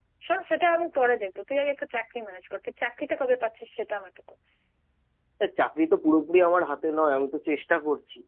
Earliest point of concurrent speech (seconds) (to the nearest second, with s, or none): none